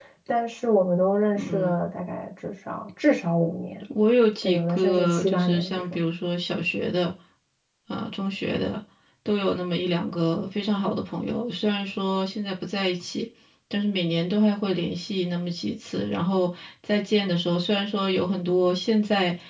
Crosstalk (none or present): present